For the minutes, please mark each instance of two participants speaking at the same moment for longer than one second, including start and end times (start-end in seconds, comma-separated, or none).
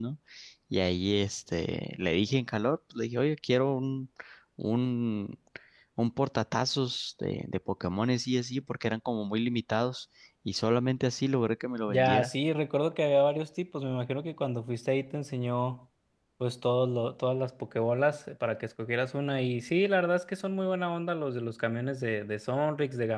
none